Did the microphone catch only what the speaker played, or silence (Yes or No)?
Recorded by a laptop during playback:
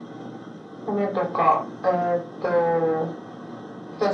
Yes